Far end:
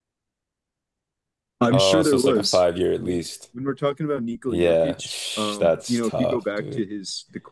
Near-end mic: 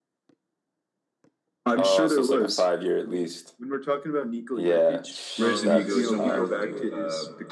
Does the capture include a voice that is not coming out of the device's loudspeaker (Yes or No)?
Yes